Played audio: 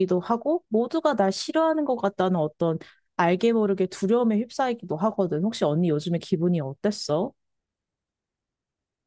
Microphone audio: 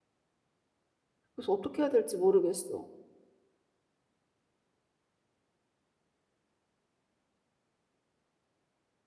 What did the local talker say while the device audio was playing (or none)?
그래서 어떻게 해야 될지 모르겠어.